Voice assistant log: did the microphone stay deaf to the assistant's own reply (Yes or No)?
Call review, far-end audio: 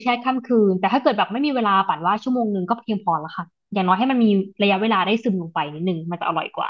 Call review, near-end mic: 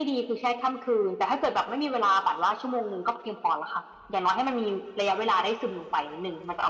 No